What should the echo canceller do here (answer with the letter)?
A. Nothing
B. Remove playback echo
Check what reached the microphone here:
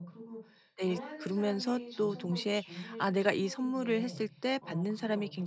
B